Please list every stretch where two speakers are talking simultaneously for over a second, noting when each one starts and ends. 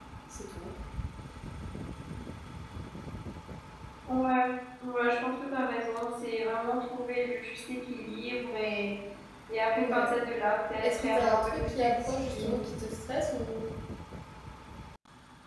10.8-12.6

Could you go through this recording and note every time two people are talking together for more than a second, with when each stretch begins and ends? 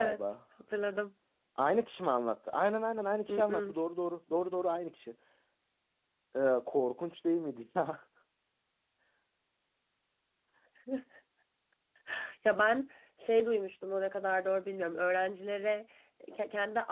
none

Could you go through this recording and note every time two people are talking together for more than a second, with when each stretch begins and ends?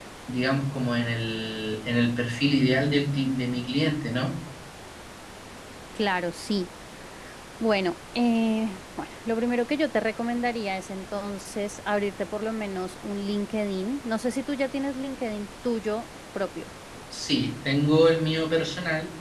none

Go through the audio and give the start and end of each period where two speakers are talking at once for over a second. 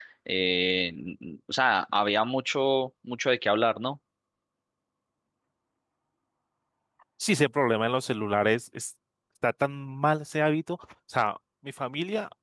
none

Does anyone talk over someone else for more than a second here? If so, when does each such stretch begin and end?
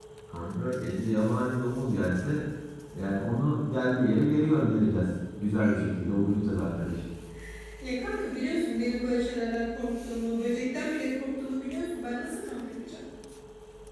none

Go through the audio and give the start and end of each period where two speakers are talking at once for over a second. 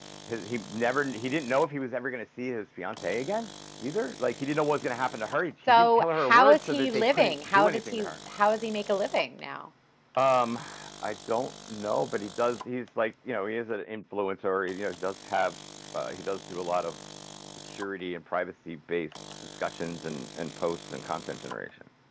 5.7-8.1

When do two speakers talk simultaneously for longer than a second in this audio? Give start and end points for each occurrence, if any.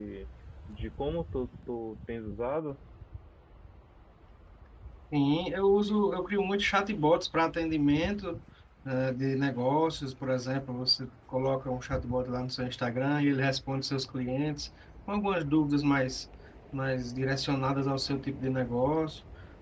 none

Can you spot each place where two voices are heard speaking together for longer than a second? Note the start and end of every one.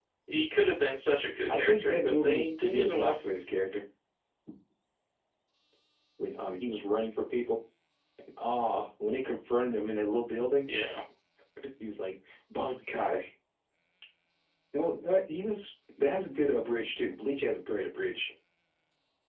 1.5-3.1

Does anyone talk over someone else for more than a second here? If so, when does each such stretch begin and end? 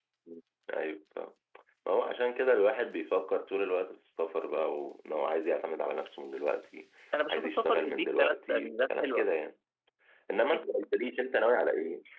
7.3-9.2

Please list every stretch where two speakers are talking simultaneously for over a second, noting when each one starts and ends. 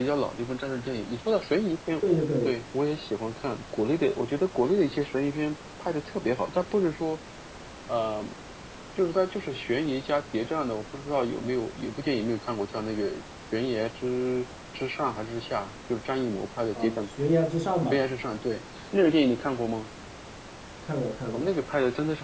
none

